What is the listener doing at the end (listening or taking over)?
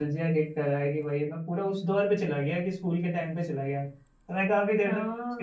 listening